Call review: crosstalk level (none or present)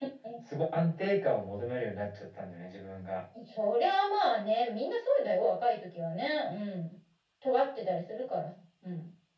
none